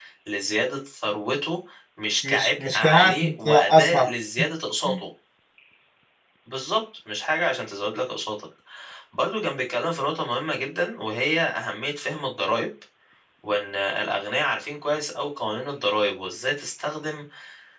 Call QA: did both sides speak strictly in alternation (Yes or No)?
No